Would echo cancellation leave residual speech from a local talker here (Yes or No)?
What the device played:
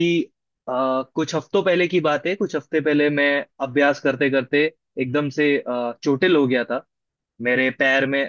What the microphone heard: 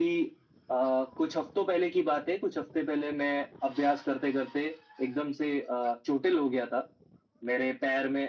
No